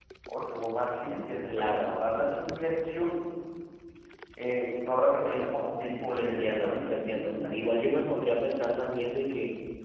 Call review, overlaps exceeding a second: present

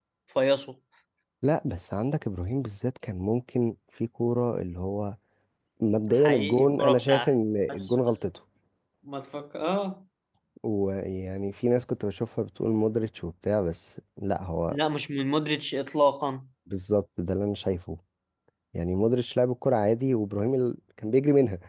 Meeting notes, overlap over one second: present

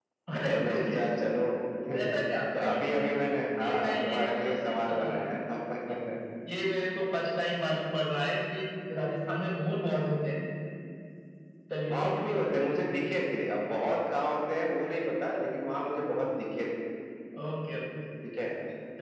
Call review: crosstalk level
present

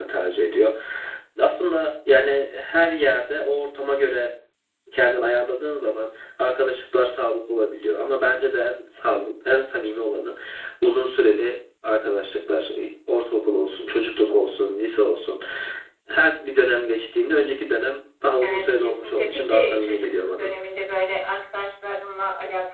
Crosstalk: present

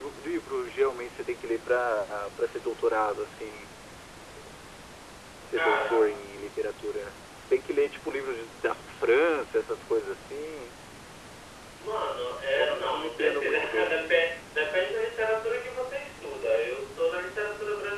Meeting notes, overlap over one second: present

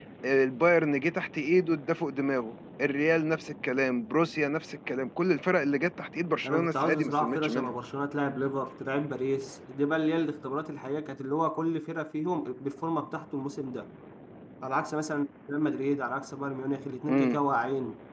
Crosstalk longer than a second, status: present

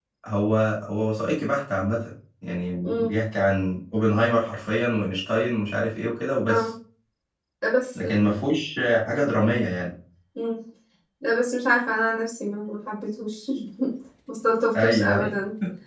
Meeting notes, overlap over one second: none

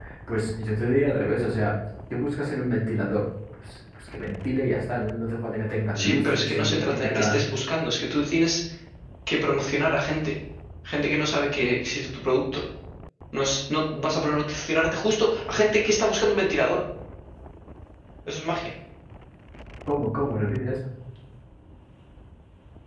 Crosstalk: present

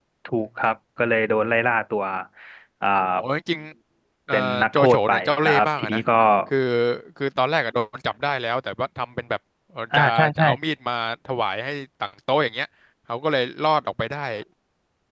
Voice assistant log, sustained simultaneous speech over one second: present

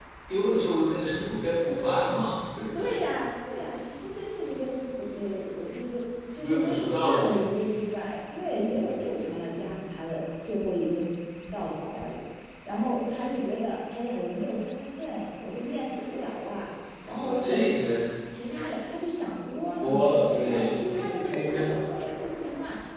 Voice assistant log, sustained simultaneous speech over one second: present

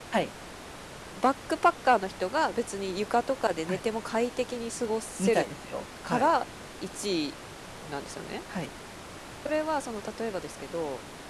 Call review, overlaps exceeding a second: none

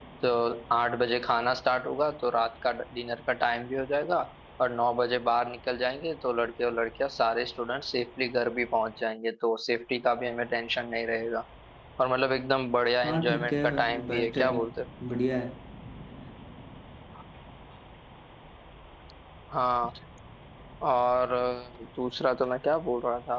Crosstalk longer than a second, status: present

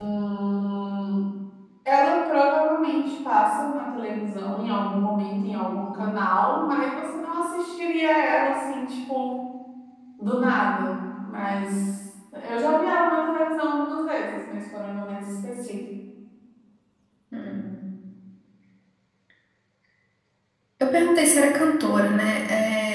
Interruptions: none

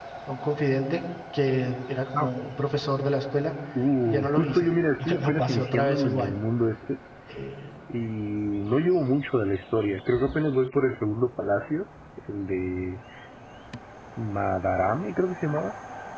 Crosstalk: present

